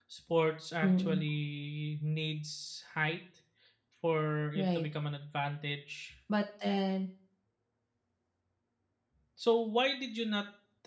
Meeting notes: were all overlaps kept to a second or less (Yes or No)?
Yes